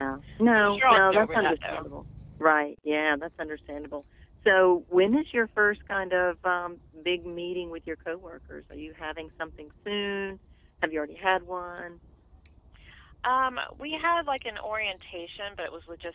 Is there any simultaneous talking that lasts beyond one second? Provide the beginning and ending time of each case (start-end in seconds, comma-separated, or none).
0.6-1.9